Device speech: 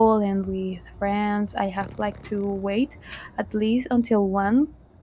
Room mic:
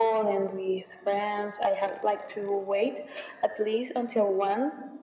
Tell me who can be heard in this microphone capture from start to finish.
echo only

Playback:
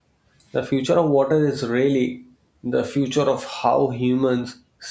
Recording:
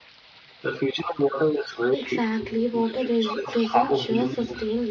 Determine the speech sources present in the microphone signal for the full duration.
both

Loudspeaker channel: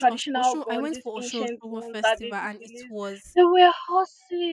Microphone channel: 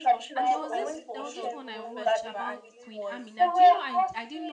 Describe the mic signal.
both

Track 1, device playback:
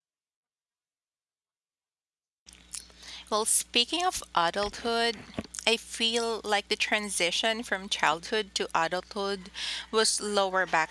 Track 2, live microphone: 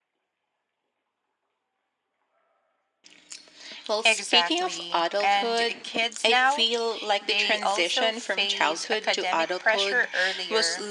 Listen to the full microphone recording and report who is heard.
both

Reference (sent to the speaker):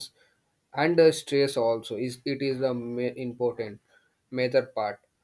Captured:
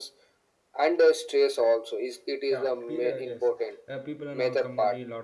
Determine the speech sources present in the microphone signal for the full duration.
both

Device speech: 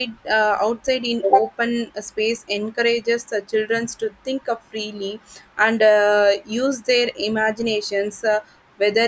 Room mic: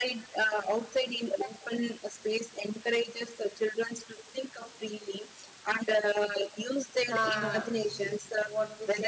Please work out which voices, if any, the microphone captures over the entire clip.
both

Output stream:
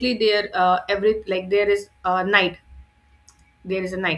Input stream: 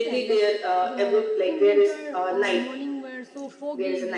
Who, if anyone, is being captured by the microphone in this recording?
both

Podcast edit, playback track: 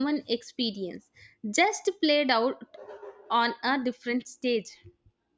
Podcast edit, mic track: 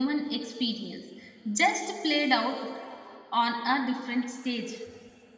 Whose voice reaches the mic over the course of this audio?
echo only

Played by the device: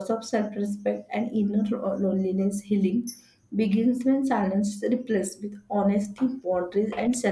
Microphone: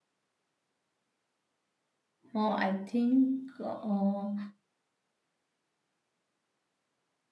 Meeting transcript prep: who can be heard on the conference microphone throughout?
user only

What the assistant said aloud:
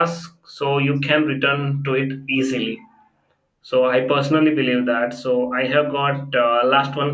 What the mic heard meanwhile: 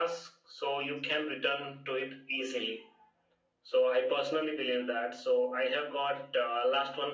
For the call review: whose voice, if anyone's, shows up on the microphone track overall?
echo only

